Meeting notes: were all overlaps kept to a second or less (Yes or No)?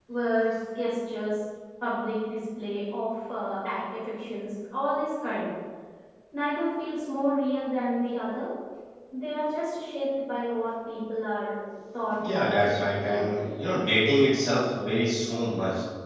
No